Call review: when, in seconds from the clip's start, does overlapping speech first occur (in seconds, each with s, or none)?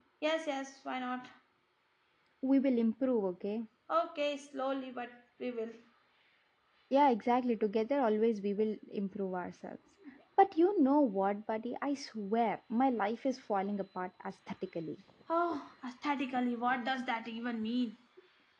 none